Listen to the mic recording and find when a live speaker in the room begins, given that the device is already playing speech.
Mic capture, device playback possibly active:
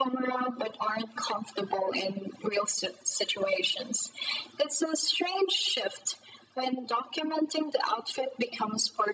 none

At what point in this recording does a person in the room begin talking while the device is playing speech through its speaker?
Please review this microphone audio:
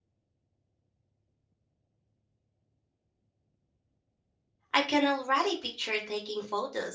4.7 s

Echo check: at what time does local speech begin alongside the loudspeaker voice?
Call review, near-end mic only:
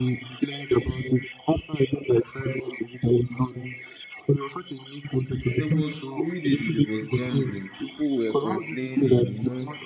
5.5 s

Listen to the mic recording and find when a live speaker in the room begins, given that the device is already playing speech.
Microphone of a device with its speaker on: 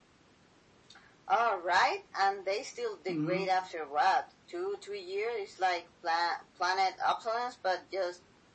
3.1 s

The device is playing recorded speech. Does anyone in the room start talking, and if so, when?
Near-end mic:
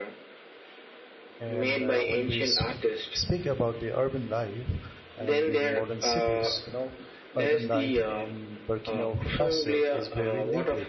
1.4 s

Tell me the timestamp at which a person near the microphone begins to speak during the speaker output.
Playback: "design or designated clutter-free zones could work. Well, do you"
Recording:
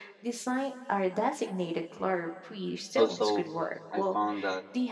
2.9 s

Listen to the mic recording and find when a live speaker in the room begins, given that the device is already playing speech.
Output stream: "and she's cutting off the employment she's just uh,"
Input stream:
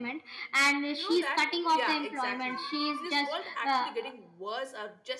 0.9 s

